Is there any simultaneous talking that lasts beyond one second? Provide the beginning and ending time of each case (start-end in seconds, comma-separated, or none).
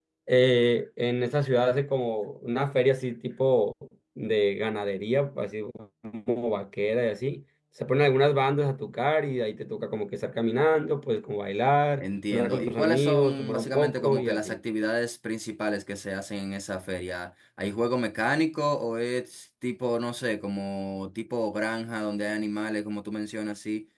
12.0-14.6